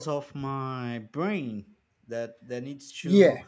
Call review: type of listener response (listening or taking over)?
taking over